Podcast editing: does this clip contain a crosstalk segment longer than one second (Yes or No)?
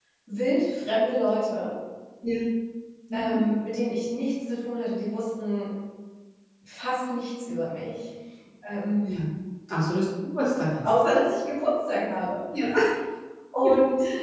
No